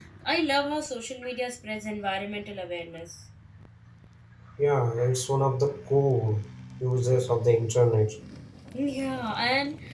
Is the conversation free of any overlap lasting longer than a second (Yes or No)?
Yes